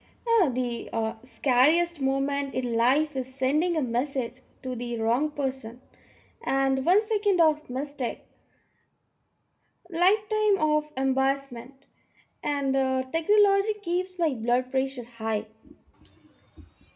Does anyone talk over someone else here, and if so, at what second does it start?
none

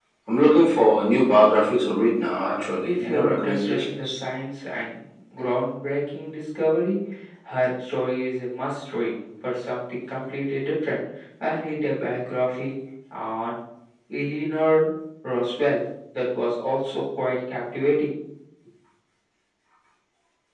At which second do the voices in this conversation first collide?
2.8 s

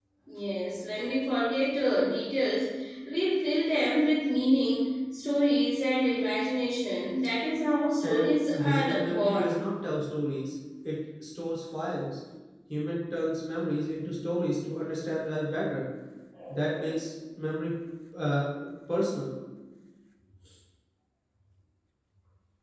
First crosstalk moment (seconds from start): 8.0 s

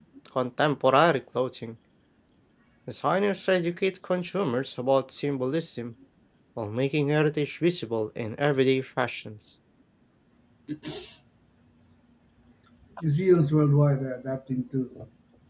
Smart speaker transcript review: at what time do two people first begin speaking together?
none

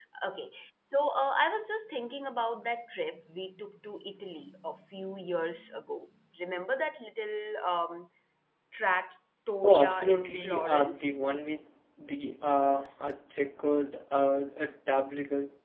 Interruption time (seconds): 9.6 s

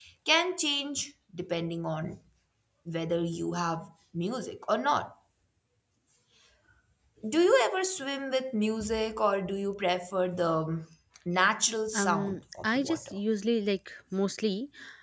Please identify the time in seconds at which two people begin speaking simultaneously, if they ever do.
11.9 s

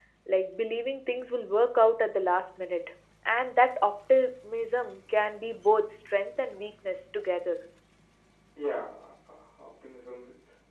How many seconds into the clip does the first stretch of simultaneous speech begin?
none

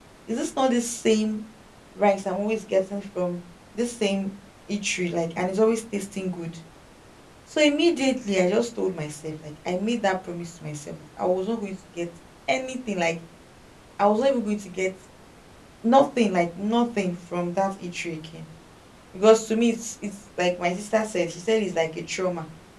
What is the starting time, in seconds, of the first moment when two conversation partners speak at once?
none

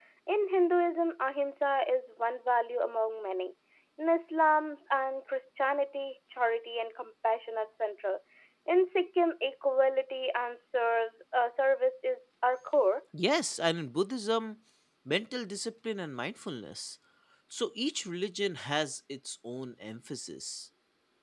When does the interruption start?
none

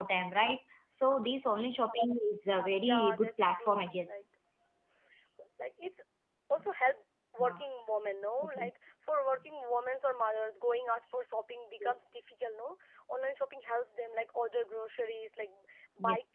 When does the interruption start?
2.8 s

